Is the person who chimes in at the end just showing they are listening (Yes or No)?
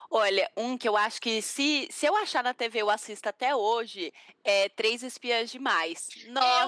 No